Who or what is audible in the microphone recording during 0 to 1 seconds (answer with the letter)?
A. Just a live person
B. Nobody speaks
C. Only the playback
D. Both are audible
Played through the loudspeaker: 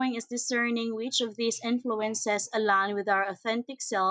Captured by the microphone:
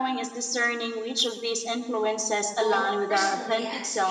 C